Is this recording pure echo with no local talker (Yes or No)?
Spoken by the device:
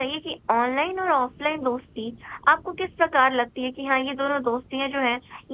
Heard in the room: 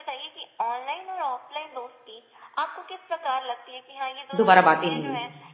No